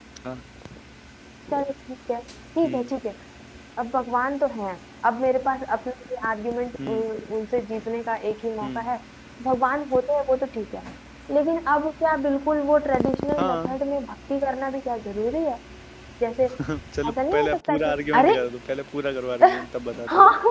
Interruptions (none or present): present